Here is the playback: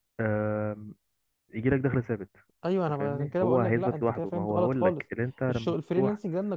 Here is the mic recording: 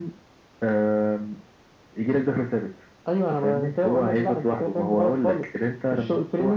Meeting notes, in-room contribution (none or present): none